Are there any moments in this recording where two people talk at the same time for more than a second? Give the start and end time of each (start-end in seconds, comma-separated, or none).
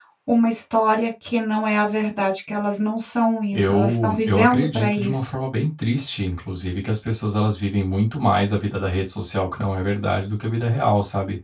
3.5-5.3